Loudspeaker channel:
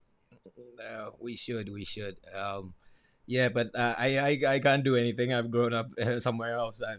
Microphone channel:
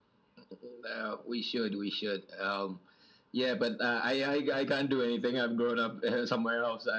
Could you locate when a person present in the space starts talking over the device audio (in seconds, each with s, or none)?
none